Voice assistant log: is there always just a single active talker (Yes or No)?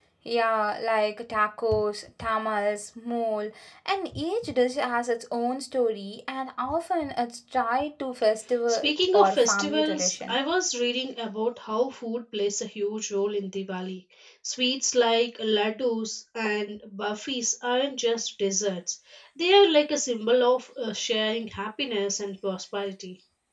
No